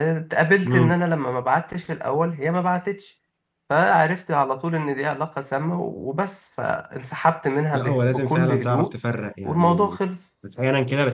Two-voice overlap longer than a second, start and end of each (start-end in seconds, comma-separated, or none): 7.7-8.9